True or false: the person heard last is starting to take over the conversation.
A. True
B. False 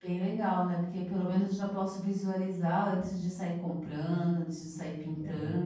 A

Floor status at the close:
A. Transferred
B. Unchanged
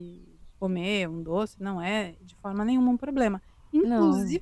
B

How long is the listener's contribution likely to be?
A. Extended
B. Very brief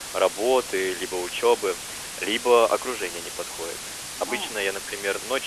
B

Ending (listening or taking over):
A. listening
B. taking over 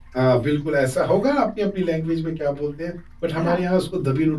A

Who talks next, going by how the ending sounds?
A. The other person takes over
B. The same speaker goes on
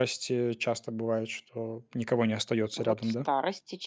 A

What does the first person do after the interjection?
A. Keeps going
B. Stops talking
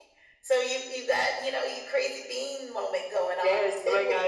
B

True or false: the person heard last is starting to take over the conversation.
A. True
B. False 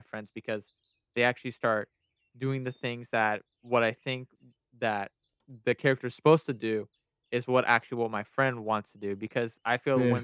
B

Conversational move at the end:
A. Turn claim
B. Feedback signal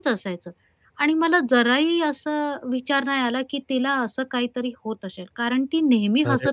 B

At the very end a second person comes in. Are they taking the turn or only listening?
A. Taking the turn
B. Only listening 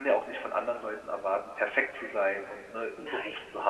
B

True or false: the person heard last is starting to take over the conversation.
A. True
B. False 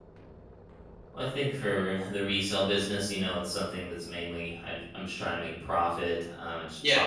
B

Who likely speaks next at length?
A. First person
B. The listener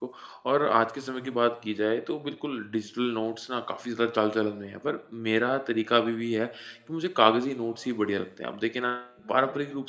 A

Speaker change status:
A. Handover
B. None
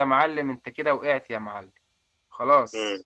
A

